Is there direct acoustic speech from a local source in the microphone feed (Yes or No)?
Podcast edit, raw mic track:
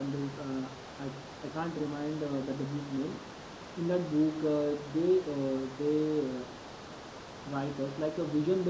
Yes